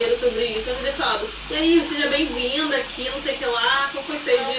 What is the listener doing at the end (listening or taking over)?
listening